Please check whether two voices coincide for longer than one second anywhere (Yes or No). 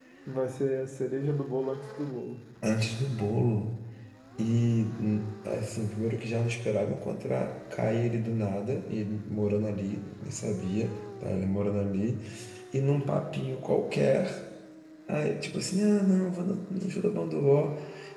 No